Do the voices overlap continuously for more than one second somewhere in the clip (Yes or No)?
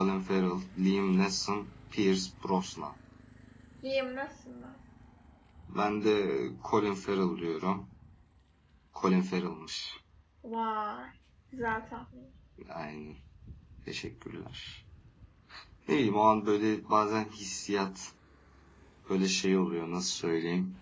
No